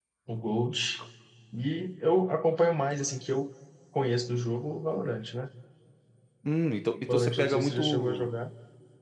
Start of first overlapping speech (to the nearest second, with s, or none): 7 s